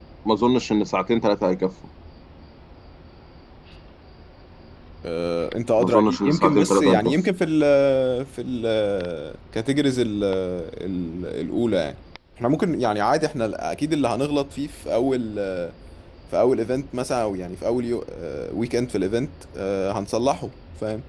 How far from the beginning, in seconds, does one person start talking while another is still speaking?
5.8 s

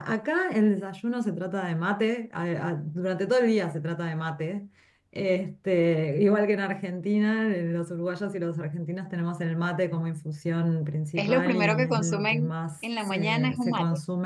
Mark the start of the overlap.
11.2 s

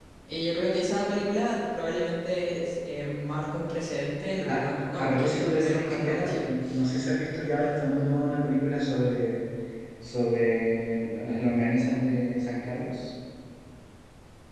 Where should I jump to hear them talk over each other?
4.5 s

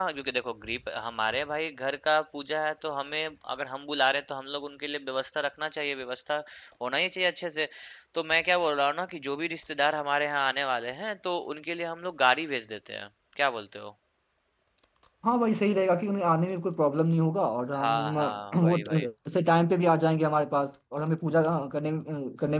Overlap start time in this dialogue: 17.8 s

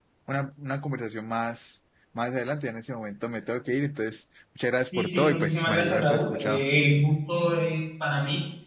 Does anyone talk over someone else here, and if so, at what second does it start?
4.9 s

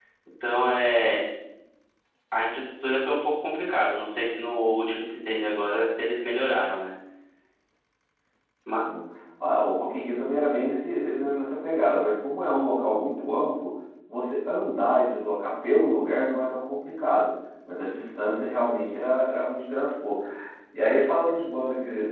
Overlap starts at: none

